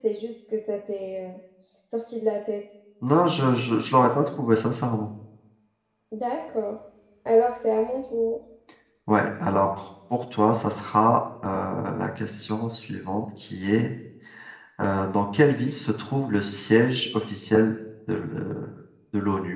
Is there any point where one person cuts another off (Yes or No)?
No